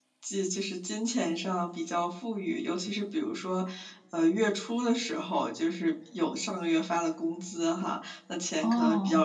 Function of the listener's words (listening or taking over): listening